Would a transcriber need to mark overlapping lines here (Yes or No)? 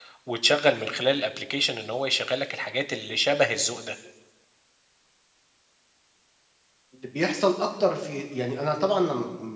No